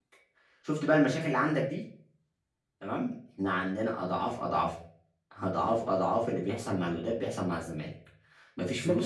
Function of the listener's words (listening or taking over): taking over